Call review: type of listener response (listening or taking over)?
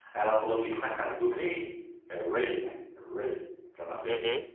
listening